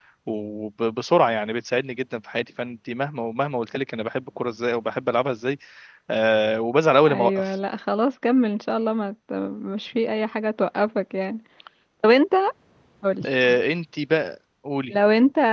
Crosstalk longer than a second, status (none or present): none